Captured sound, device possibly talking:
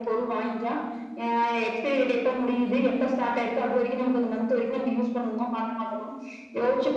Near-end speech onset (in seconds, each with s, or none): none